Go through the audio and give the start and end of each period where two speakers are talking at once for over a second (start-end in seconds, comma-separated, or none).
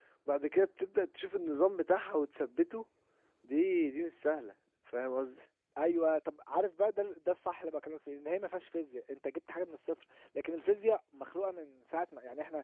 none